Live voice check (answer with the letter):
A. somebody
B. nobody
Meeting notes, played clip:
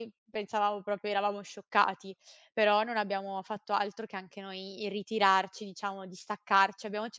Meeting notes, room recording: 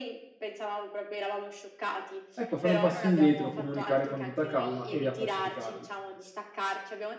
A